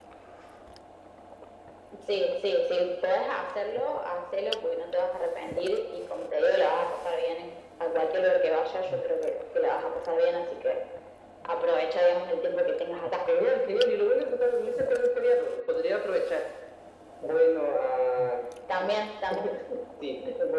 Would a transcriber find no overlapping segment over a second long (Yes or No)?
Yes